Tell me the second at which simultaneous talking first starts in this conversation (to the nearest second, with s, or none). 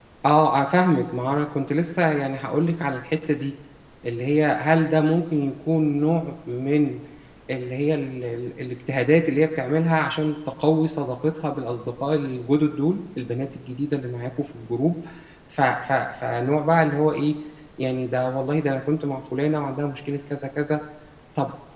none